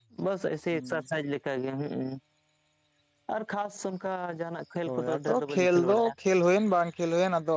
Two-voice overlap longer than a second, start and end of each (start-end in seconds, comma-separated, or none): 4.9-6.1